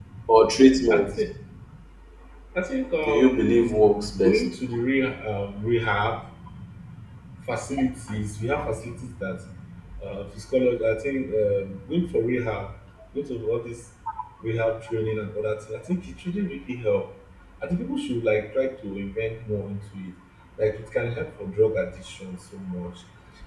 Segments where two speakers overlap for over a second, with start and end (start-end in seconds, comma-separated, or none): 3.0-4.4